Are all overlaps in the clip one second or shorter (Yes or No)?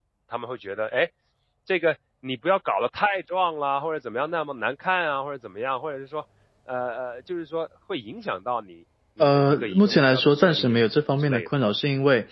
No